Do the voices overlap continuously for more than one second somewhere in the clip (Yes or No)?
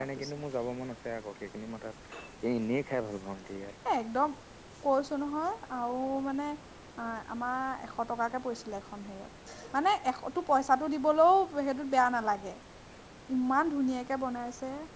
No